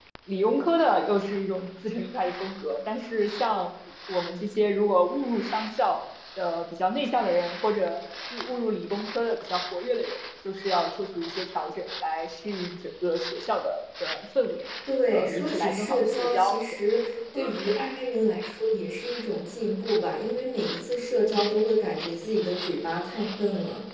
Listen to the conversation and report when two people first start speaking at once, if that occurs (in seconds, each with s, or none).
15.1 s